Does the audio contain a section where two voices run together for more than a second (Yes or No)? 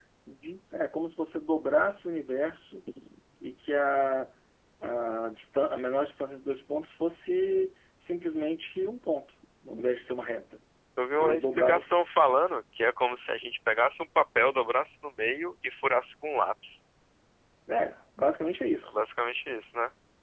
Yes